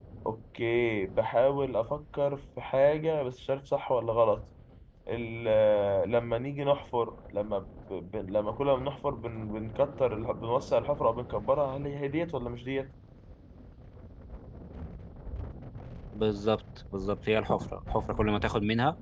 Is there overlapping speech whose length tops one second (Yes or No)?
No